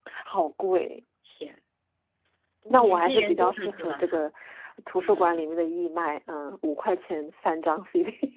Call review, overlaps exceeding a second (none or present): present